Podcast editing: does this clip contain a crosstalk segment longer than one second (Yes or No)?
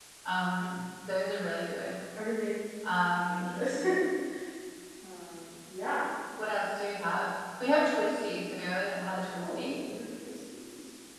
No